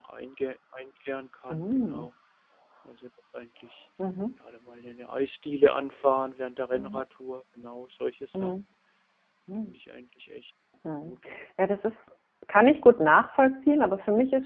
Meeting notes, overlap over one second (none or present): none